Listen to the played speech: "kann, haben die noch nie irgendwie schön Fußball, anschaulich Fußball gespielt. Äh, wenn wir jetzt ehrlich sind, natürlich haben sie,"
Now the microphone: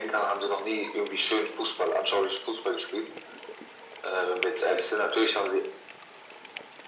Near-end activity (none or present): none